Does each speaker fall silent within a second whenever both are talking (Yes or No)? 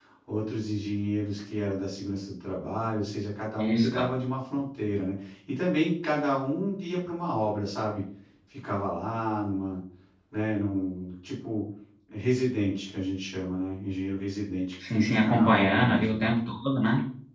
No